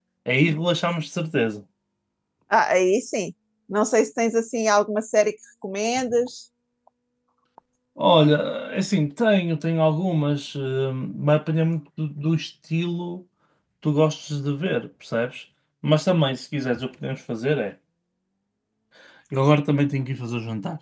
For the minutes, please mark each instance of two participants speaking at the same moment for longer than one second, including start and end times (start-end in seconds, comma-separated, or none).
none